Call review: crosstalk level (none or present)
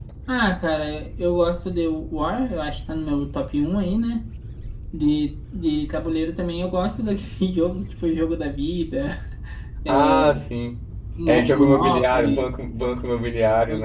present